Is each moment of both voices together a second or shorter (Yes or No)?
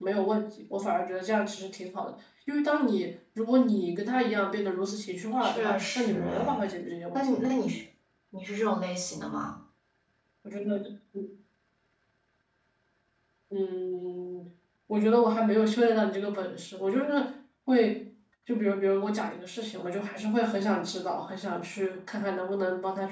No